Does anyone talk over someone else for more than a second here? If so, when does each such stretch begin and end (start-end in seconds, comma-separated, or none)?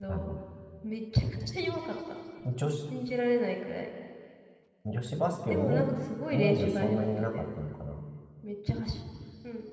6.3-7.6